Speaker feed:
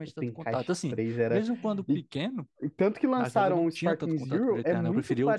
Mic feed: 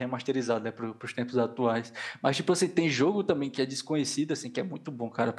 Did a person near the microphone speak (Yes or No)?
Yes